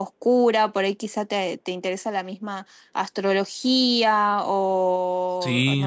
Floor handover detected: No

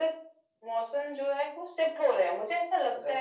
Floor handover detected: No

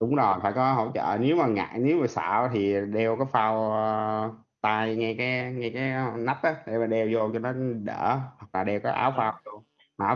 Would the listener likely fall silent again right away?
Yes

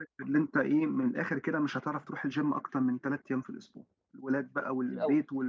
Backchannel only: Yes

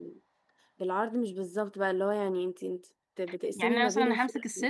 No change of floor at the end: No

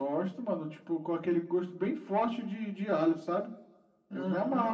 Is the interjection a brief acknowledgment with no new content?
No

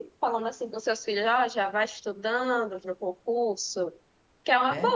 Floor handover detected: No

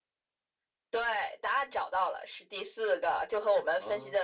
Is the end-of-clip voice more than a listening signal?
No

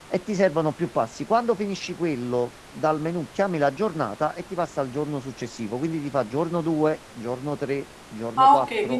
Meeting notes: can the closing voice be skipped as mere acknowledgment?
No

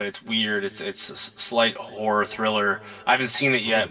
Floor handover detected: No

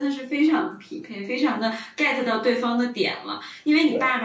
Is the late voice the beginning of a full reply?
No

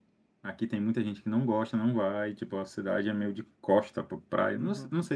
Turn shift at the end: No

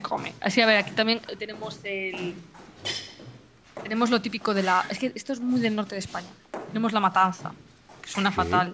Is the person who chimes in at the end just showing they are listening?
Yes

